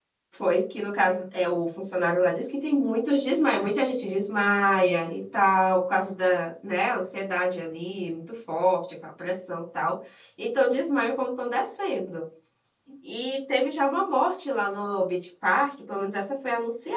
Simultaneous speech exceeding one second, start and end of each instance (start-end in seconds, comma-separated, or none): none